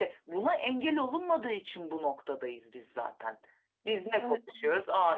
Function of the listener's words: listening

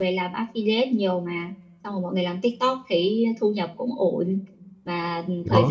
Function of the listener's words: listening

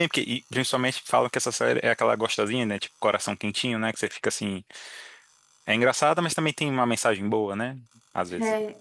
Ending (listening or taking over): taking over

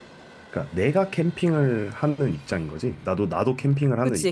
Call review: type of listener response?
taking over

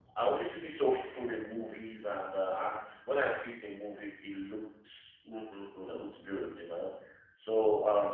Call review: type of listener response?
listening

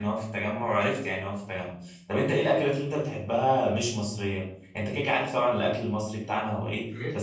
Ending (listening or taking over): listening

